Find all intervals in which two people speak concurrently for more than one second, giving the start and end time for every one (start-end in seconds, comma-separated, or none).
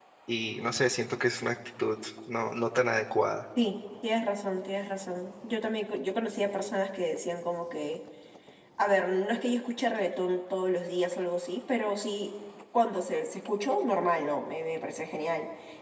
none